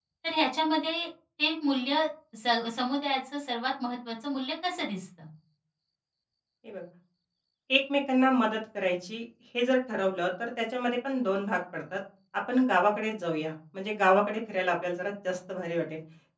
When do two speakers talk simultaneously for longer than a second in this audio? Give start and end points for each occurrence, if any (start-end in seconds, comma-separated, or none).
none